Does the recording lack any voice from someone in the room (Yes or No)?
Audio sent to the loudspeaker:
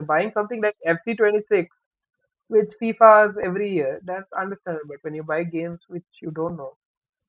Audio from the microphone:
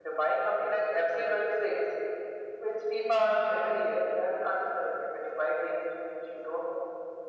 Yes